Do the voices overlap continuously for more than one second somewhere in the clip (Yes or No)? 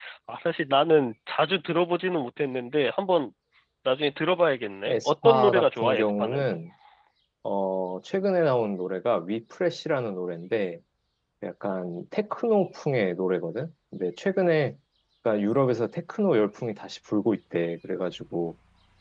Yes